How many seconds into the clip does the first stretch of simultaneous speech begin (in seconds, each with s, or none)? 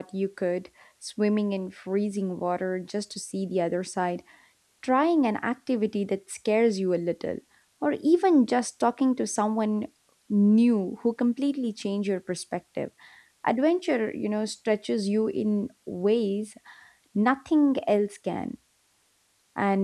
none